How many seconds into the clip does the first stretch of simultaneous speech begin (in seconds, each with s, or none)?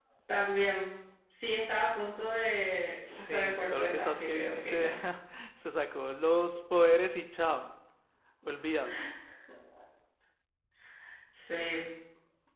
3.1 s